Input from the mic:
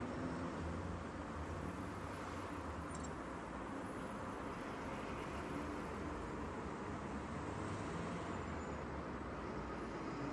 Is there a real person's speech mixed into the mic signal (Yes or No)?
No